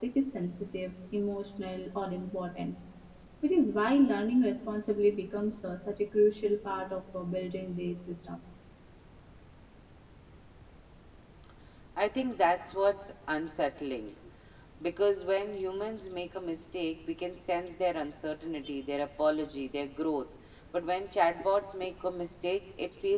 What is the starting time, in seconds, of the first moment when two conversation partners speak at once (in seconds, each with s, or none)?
none